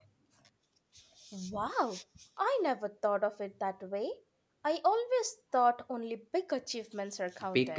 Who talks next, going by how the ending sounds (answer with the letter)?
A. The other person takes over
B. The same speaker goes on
A